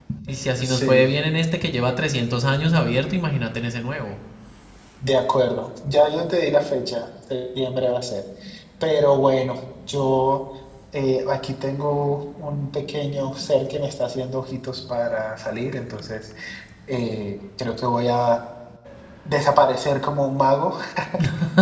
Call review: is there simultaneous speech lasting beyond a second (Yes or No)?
No